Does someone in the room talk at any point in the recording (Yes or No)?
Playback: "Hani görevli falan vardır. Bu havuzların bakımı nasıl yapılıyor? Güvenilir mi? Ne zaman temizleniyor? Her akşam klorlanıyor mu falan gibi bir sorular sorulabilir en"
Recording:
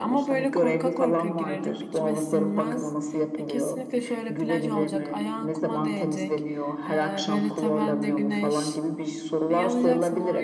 Yes